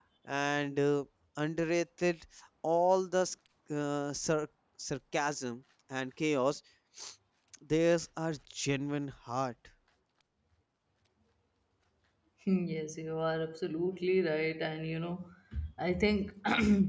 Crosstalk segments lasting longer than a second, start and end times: none

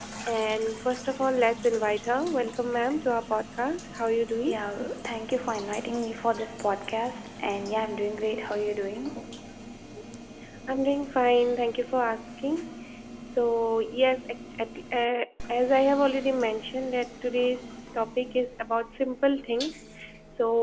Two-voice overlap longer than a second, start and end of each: none

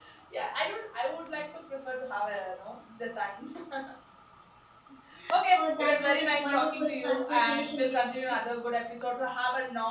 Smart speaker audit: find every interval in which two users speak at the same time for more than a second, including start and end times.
5.5-8.4

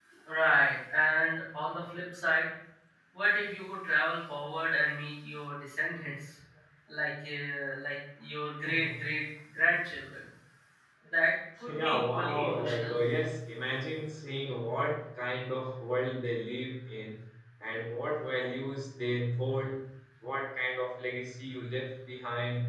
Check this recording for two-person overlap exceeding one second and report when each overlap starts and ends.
11.7-12.9

